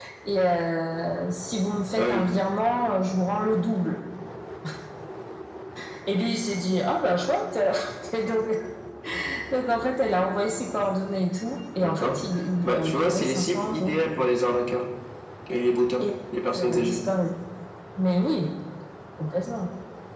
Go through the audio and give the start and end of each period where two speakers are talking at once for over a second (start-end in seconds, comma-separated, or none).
12.6-13.9